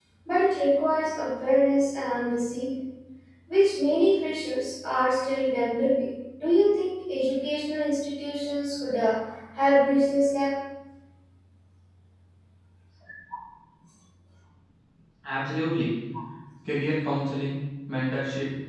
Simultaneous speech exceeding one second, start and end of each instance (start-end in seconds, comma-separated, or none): none